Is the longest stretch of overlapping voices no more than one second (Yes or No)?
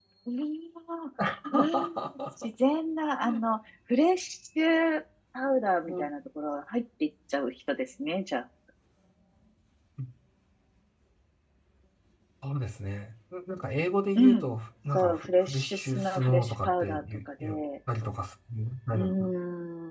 No